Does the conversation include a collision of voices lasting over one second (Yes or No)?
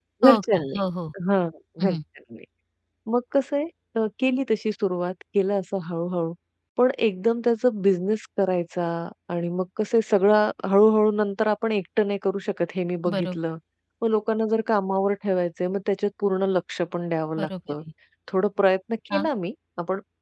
No